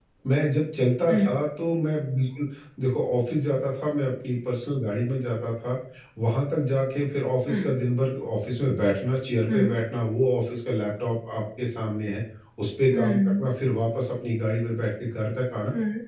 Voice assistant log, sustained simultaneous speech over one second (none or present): none